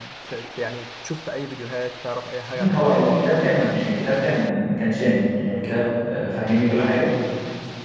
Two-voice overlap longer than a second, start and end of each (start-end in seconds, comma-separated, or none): 2.5-3.9